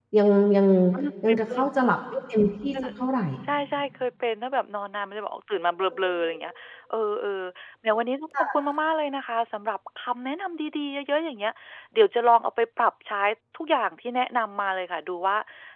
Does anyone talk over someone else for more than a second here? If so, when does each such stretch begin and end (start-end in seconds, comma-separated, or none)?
none